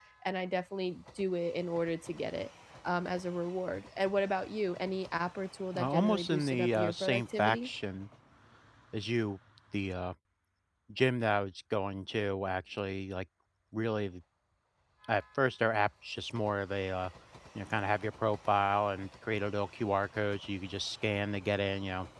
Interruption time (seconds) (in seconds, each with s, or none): 5.7 s